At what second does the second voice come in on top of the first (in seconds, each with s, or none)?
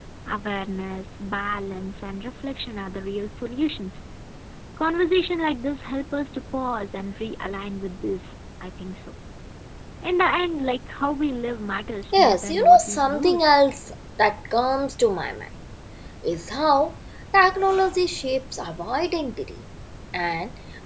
12.1 s